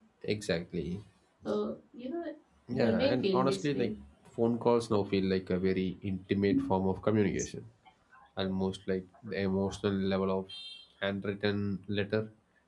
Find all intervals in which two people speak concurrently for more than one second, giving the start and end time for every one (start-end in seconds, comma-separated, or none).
2.7-3.9